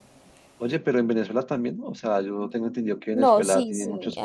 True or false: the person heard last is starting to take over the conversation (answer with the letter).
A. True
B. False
A